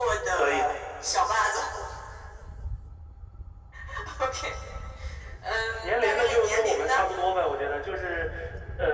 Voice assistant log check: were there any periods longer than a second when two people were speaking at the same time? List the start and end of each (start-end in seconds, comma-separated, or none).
5.8-7.1